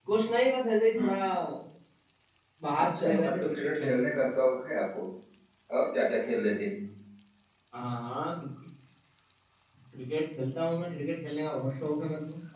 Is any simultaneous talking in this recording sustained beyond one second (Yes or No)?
Yes